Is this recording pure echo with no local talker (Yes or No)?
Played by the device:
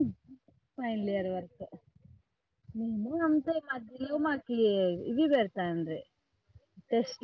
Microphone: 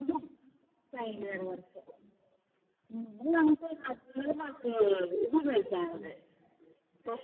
No